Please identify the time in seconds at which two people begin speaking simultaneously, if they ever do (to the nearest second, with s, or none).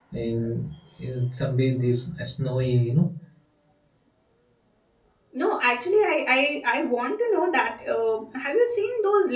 none